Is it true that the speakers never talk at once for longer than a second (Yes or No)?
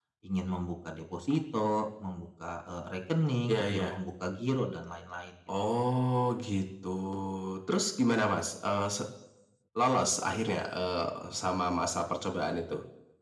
Yes